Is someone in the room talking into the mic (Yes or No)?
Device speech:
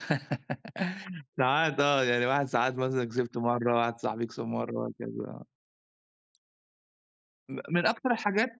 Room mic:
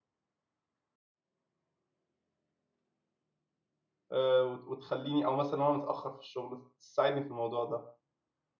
Yes